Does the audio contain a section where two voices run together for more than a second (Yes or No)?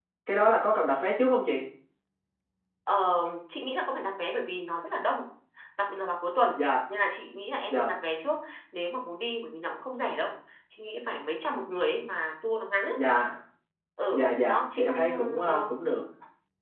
Yes